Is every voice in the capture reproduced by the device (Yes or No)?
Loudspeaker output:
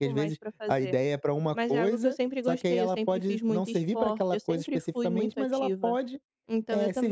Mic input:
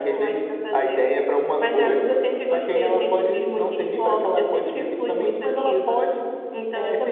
Yes